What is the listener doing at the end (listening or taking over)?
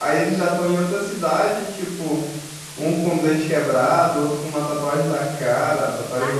listening